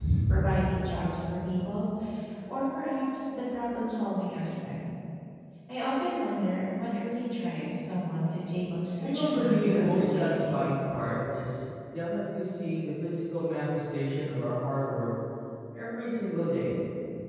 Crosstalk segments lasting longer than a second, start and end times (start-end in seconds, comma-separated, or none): 9.0-10.6